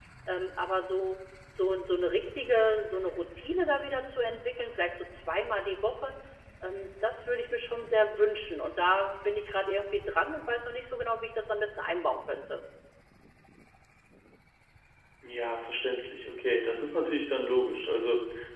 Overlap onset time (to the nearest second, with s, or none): none